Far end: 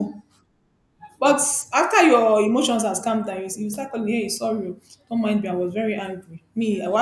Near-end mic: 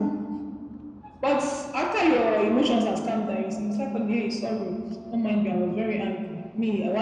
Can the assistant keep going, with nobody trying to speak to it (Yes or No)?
Yes